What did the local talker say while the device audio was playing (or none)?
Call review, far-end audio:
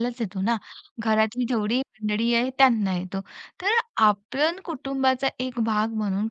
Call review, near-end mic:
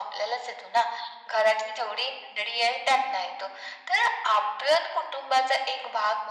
none